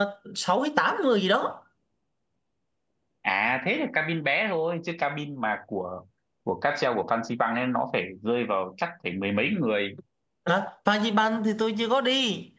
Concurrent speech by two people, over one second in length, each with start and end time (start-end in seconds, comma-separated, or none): none